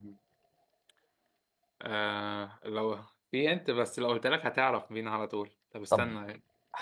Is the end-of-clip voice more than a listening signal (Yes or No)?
Yes